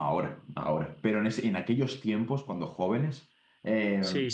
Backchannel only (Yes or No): Yes